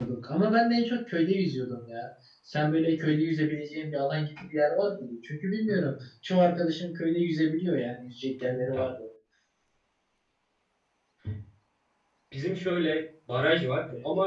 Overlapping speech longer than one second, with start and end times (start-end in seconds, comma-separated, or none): none